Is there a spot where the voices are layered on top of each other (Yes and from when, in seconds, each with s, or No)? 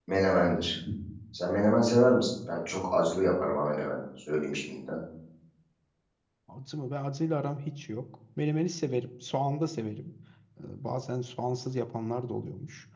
No